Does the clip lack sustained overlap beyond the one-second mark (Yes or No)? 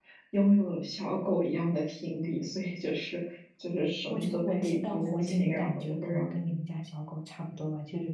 No